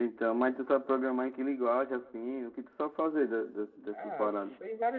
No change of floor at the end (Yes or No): No